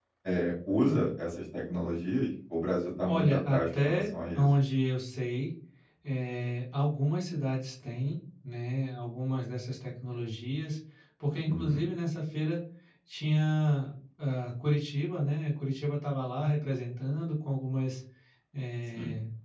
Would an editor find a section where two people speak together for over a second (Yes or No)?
Yes